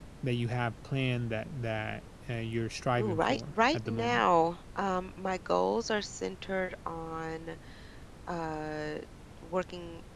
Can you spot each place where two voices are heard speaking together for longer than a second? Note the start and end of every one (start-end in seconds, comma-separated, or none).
3.0-4.2